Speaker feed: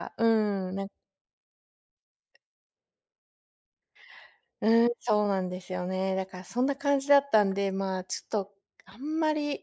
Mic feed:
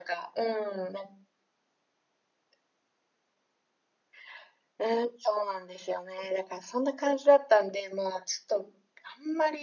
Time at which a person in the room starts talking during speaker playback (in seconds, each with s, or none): none